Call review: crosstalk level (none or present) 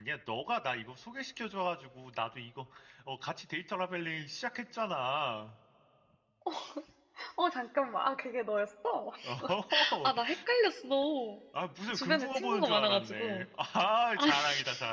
present